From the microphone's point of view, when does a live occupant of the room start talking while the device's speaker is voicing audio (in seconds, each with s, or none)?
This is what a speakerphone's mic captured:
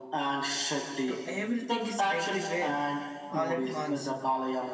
1.1 s